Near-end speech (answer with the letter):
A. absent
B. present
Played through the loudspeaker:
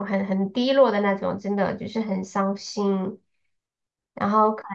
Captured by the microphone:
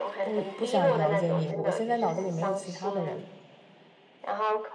B